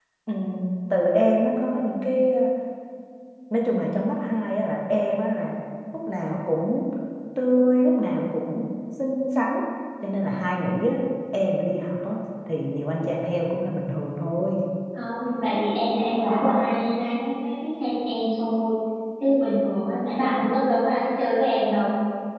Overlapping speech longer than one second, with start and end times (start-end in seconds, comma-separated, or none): none